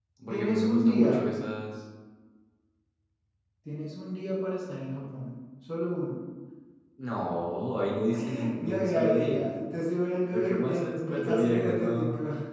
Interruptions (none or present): present